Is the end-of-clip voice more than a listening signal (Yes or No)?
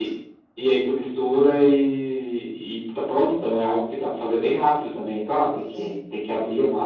No